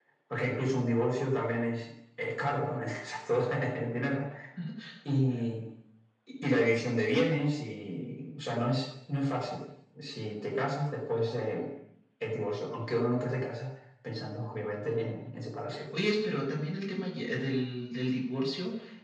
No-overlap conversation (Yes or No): Yes